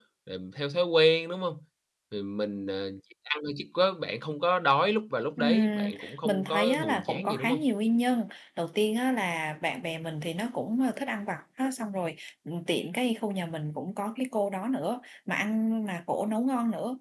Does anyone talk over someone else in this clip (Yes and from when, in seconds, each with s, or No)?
Yes, from 5.4 s